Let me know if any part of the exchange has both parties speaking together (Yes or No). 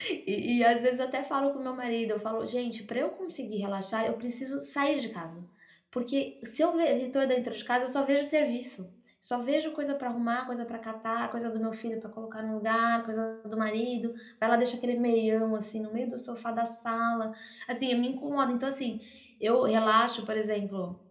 No